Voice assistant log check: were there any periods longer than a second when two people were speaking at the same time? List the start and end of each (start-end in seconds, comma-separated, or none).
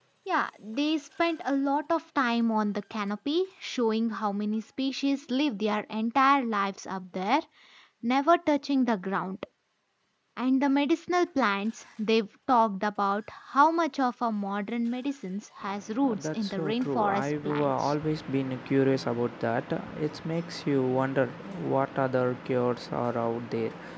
16.1-17.9